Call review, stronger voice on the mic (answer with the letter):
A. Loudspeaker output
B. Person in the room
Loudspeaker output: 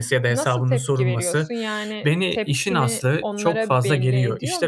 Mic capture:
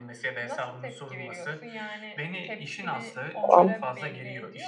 B